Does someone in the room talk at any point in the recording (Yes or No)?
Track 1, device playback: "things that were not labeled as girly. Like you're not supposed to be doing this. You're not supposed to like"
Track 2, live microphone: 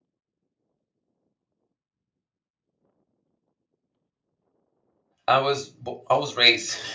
Yes